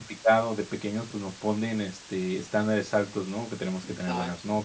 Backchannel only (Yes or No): Yes